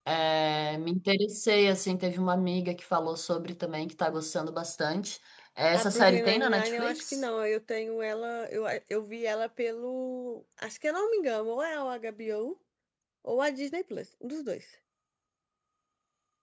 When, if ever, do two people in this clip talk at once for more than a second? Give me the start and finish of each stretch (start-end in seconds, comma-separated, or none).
5.7-7.2